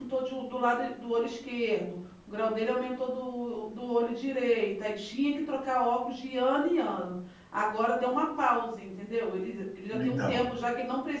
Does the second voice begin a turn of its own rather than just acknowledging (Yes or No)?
No